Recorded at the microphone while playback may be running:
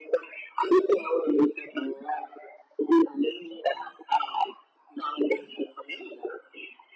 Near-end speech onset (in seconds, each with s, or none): none